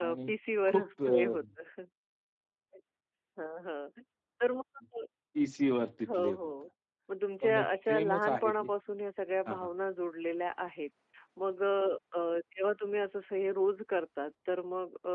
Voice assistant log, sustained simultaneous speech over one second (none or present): present